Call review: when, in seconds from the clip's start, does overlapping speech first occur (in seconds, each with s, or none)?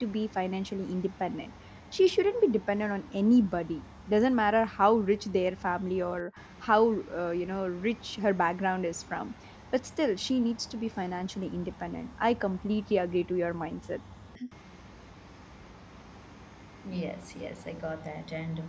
none